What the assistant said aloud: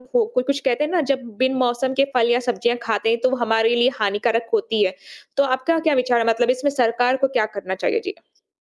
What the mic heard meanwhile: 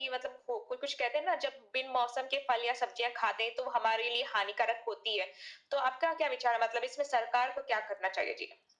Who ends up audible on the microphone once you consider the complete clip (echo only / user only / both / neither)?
echo only